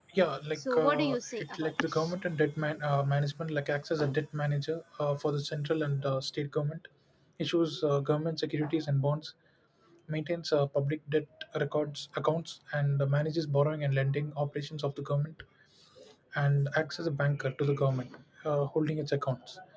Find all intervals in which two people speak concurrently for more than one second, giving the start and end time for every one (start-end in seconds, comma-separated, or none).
0.6-2.1